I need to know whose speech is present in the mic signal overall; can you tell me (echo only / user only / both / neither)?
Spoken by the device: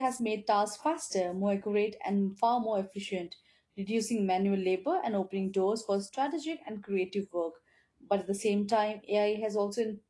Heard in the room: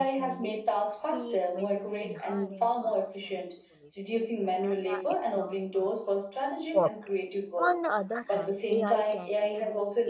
both